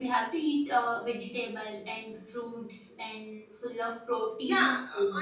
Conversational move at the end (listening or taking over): taking over